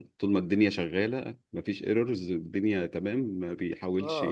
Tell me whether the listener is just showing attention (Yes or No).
No